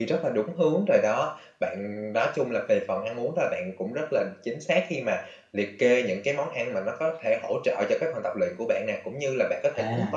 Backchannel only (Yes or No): Yes